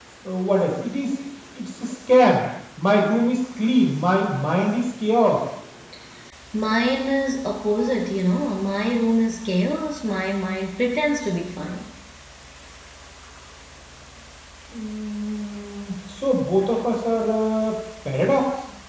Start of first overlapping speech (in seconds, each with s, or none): none